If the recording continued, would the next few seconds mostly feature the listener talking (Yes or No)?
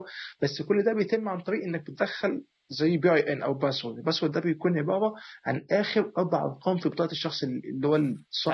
Yes